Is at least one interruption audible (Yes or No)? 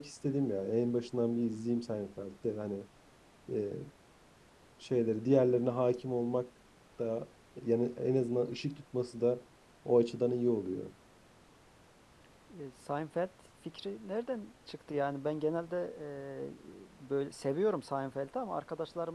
No